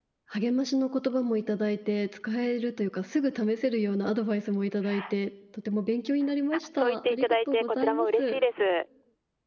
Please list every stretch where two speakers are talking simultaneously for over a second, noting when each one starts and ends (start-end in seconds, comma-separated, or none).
6.5-8.4